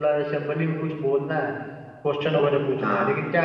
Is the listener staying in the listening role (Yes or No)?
Yes